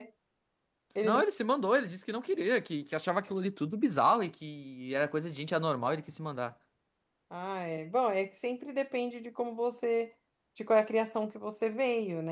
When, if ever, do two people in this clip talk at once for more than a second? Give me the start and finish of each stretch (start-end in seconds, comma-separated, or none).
none